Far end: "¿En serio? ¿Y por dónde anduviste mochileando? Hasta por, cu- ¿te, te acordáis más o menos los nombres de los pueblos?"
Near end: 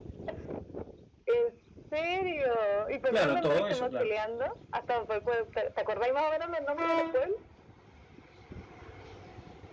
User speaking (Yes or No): Yes